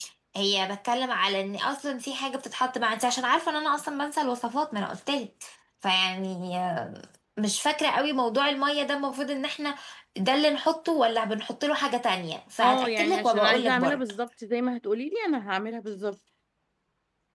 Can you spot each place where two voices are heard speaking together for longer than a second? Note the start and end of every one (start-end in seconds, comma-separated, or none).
12.6-14.0